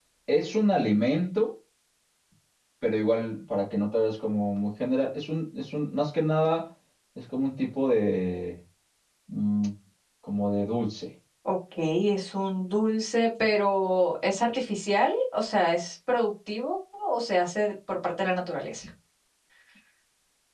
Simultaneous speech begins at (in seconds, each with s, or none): none